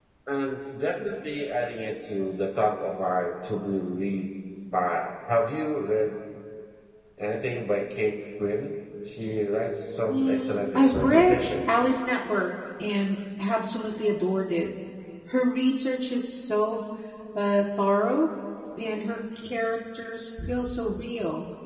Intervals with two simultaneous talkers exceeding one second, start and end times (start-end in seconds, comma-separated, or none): 10.1-11.4